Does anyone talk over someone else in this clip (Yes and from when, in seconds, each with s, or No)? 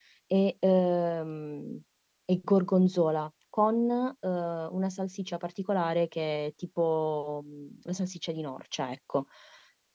No